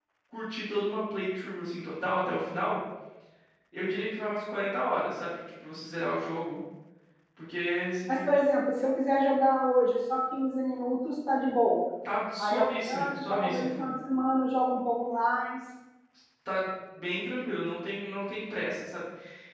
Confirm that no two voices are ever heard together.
No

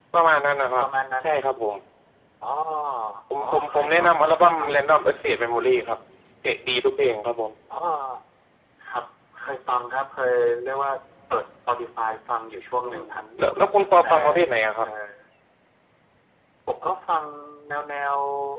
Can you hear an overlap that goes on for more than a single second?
Yes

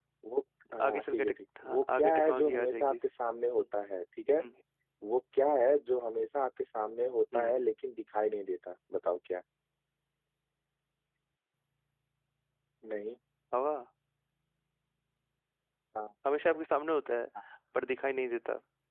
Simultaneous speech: Yes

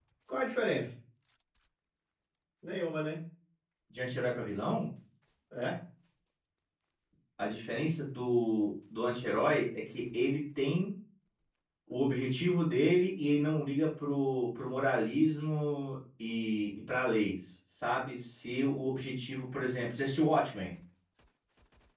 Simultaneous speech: No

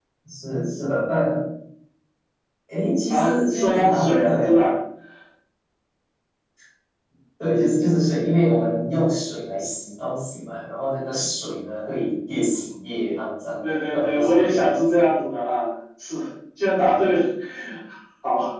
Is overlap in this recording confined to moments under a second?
No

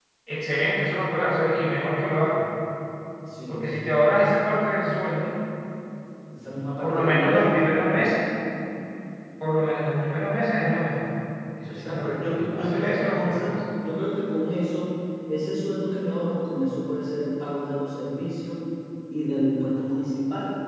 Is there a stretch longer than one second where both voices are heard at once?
Yes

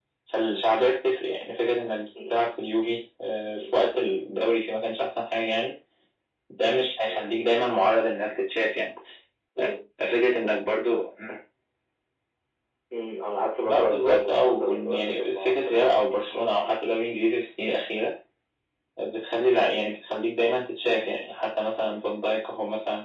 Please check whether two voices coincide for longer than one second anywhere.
Yes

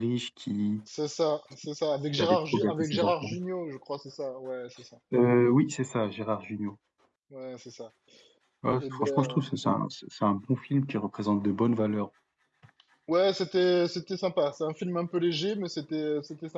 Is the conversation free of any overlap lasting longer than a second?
No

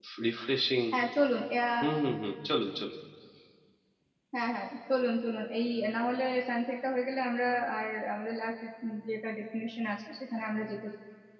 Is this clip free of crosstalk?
Yes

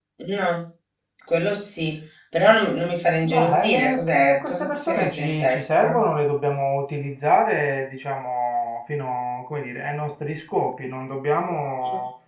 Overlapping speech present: Yes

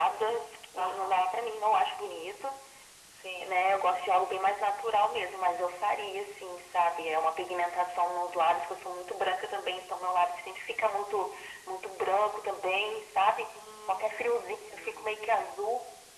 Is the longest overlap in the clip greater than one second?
Yes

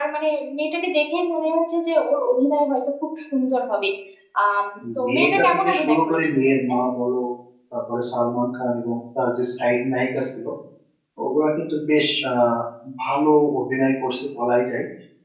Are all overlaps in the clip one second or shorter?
No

